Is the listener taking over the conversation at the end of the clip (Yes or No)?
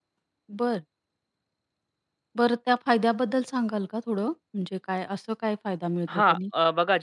Yes